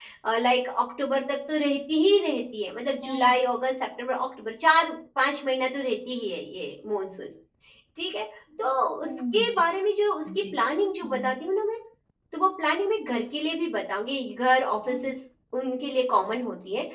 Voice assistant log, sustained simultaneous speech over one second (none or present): none